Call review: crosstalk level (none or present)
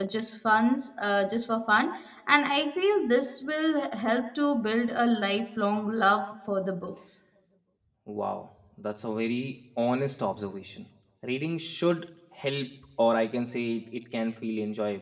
none